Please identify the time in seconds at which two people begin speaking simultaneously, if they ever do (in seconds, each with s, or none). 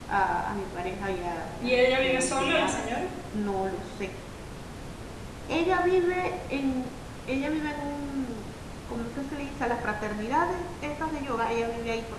1.6 s